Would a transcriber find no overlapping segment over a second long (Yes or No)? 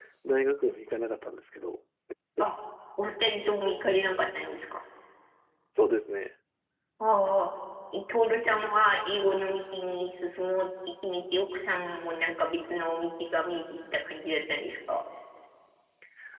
Yes